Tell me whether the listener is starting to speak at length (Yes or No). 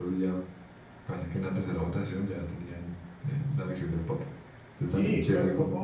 Yes